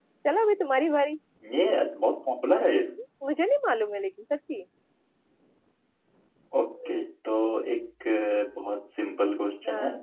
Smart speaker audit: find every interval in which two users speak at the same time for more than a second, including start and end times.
none

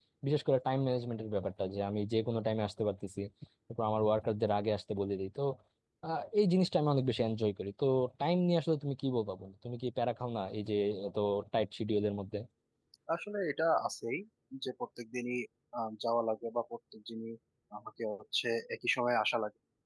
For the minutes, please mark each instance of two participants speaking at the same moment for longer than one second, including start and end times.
none

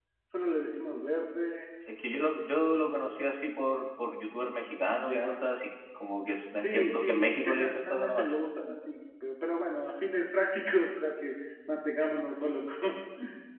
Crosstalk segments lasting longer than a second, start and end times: 6.5-8.4

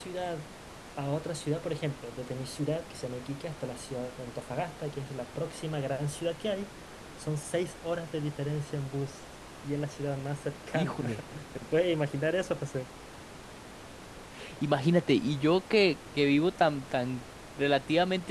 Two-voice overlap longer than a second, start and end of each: none

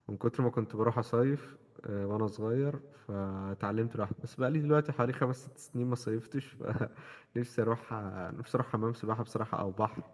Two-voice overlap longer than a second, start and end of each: none

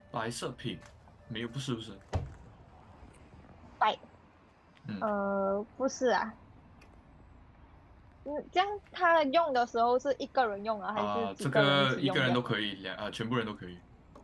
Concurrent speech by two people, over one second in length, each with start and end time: 10.9-12.4

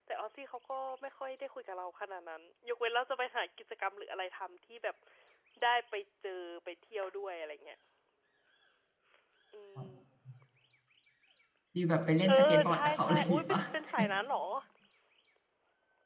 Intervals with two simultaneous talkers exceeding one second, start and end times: 12.3-13.6

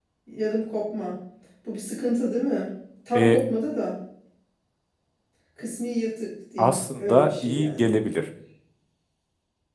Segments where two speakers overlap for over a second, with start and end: 6.6-7.9

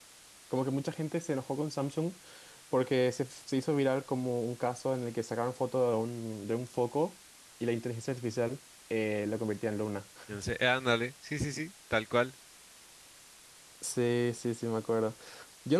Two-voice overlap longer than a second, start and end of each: none

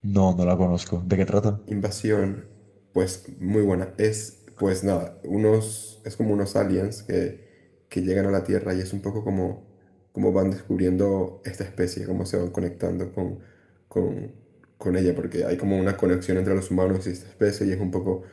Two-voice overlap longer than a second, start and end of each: none

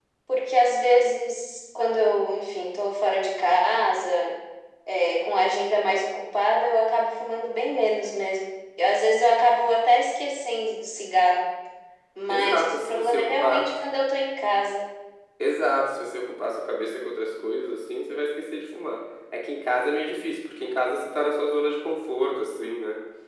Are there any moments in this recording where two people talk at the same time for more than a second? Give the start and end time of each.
12.3-13.7

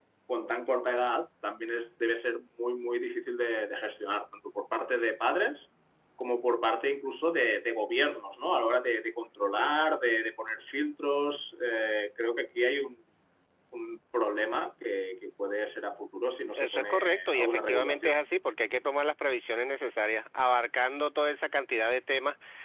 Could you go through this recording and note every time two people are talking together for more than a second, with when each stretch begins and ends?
16.5-18.2

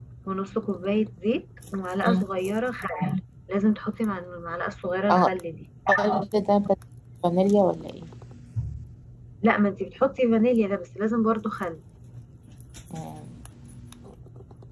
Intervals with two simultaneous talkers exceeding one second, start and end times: none

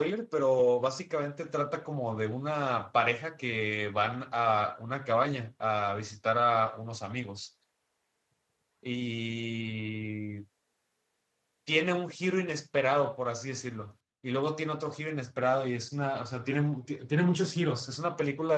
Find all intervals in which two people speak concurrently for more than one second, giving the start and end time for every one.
none

